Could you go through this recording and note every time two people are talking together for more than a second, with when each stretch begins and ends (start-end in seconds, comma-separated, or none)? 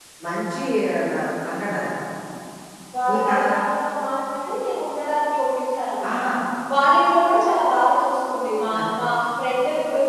none